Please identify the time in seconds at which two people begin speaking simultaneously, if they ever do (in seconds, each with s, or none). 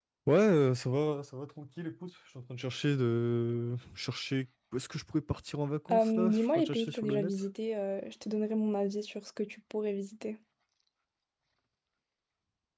5.9 s